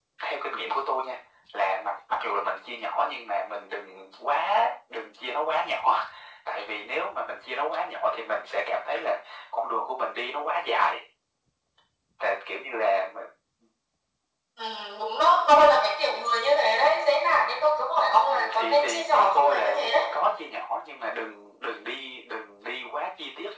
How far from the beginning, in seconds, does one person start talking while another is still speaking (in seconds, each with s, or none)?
18.3 s